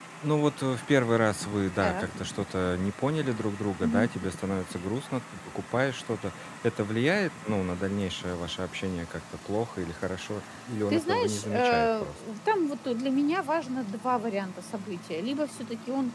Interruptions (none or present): present